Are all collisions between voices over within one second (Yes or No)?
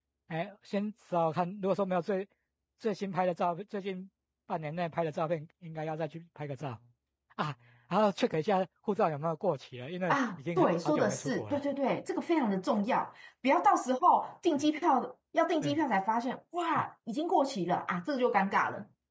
No